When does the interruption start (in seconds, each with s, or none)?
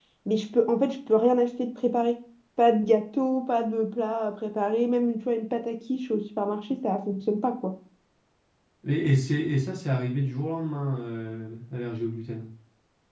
none